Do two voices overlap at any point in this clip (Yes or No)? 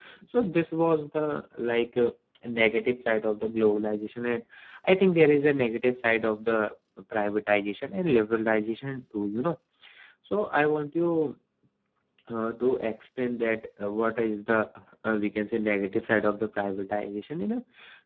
No